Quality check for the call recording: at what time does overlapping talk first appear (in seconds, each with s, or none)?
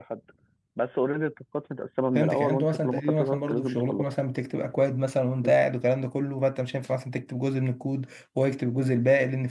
2.1 s